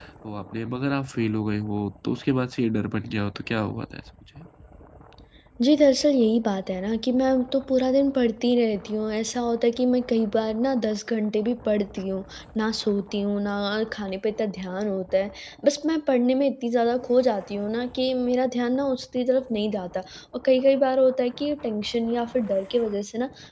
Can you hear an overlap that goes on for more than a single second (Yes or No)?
No